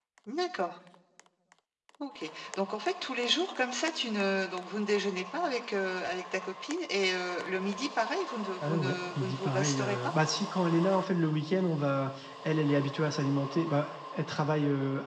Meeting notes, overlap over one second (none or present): present